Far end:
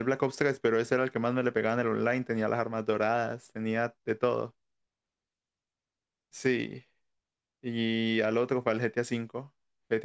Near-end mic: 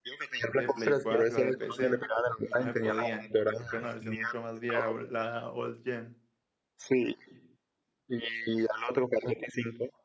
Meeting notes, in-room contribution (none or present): present